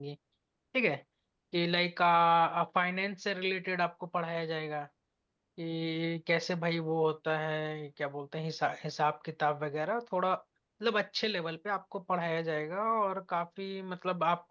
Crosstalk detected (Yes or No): No